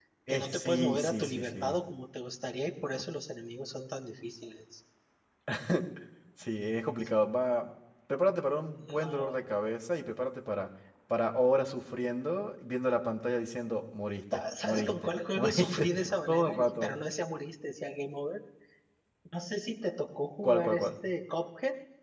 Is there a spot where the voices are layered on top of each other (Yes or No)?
Yes